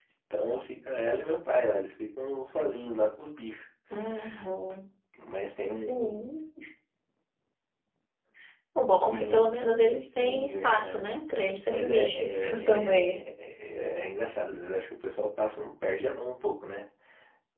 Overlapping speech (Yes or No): Yes